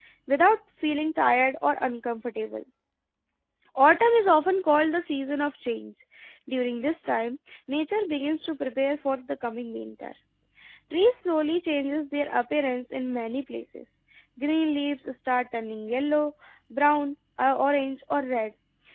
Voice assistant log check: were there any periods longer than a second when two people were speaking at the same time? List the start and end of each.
none

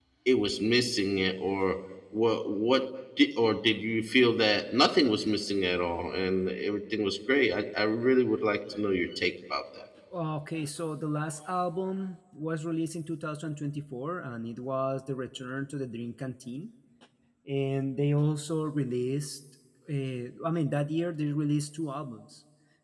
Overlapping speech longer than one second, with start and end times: none

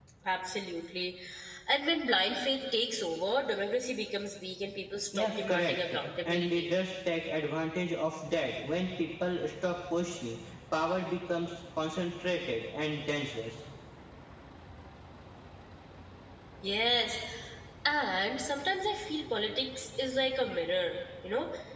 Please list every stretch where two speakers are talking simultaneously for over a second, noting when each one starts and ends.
5.2-6.7

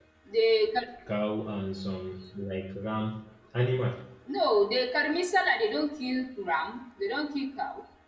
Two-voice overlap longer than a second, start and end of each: none

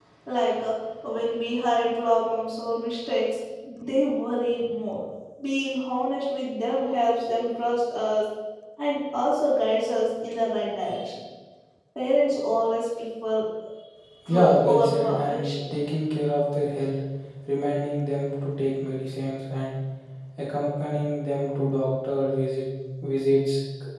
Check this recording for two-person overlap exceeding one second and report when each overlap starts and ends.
14.3-15.5

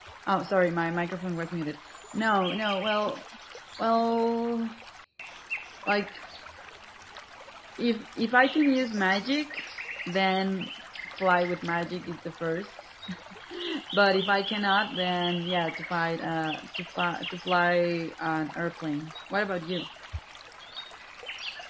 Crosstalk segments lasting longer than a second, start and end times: none

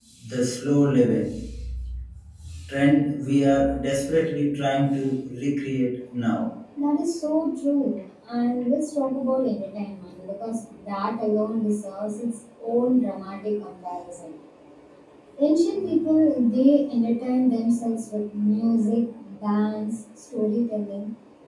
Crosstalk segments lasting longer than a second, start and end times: none

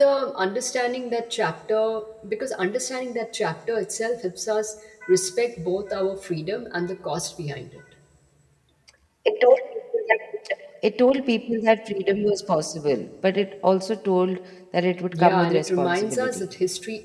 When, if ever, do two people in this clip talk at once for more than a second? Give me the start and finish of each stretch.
15.1-16.5

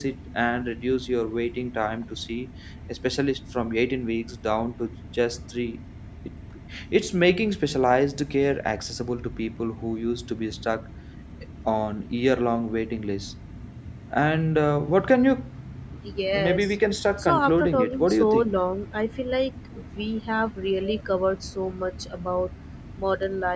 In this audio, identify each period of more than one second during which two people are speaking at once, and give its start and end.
17.2-18.5

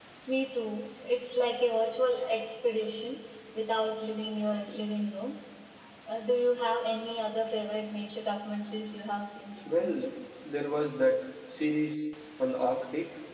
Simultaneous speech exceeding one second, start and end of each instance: none

